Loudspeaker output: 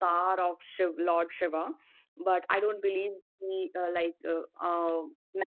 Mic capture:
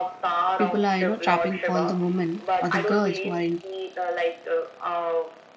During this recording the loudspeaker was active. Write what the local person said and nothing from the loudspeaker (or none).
people are you know trapping all the women or the girls who are in